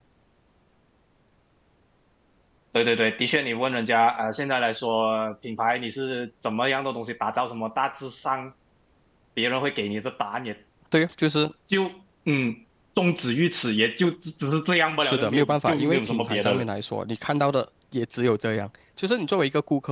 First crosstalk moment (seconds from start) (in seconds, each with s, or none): 15.0 s